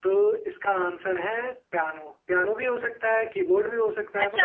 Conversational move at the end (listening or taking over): taking over